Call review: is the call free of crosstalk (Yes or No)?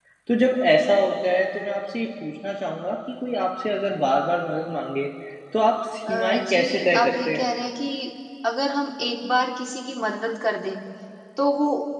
No